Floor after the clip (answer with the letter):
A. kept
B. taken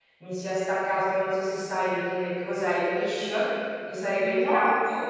A